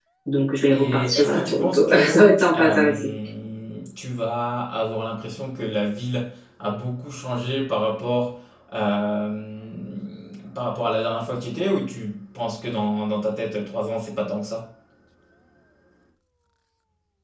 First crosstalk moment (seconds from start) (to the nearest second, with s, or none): 1 s